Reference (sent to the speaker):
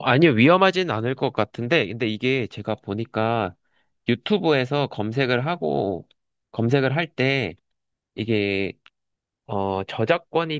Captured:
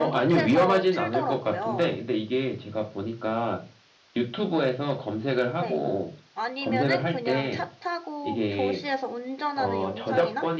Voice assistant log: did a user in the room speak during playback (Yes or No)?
Yes